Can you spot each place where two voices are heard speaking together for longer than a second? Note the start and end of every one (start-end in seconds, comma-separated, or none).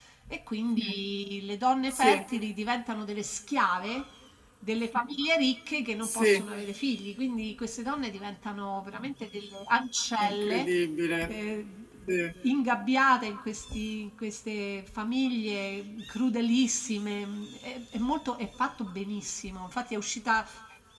none